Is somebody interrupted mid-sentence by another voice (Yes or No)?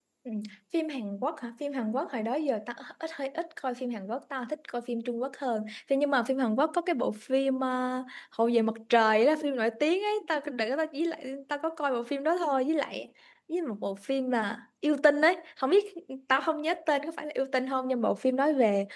No